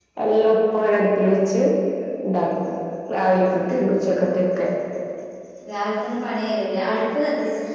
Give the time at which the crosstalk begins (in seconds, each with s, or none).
none